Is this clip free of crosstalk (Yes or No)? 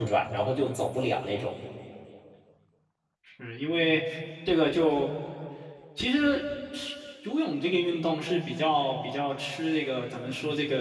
Yes